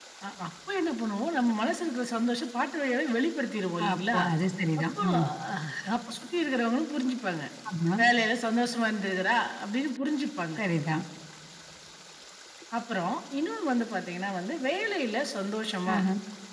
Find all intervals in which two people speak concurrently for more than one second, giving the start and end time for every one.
none

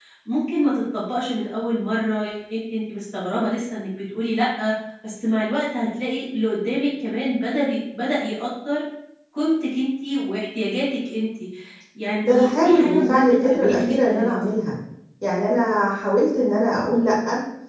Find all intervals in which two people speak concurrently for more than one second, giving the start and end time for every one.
12.2-14.4

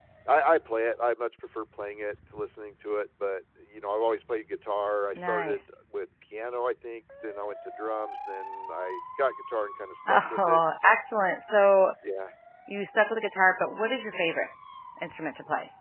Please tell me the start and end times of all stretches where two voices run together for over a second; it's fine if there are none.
none

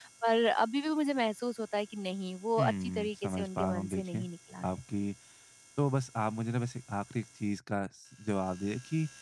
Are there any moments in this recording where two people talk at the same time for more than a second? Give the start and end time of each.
2.6-4.2

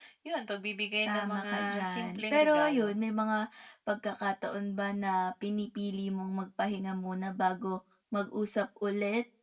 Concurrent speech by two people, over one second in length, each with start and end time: 1.1-2.9

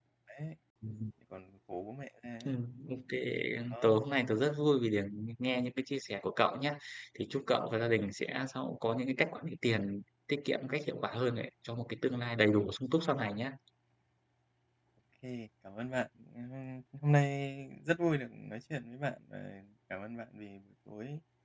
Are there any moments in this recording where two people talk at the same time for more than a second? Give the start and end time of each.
none

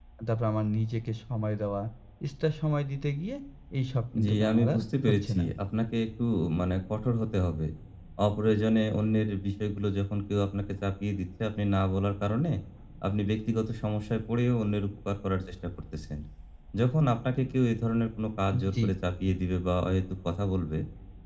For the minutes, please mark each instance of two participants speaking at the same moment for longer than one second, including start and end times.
4.2-5.5

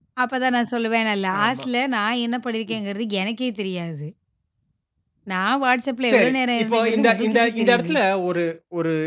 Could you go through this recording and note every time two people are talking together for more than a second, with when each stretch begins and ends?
6.1-7.9

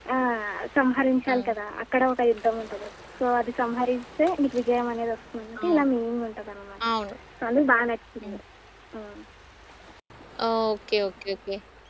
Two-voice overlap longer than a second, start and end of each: none

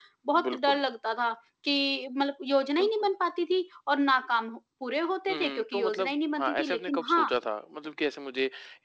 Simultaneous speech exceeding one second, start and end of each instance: 5.3-7.3

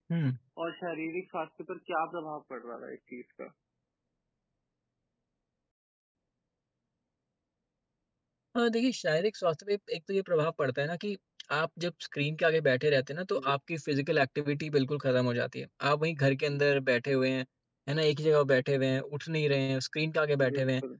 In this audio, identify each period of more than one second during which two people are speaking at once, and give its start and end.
none

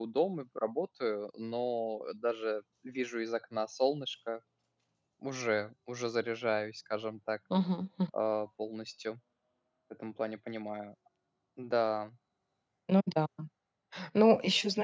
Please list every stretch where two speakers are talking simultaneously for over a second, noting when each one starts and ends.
none

